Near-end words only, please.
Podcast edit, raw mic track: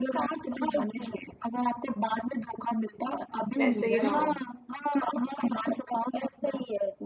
वैसे ही रहो

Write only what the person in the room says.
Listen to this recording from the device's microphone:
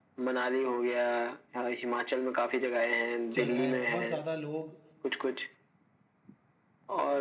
चल रहा है बहुत ज़्यादा लोग

